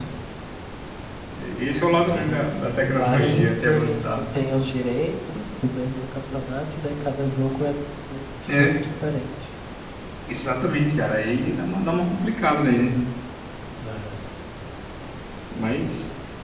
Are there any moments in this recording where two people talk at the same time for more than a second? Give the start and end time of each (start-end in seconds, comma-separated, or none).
1.9-4.2